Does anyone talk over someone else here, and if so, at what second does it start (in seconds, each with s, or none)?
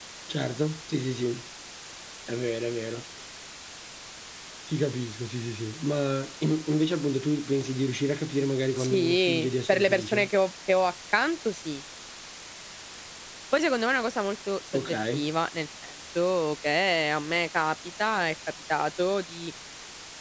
8.8 s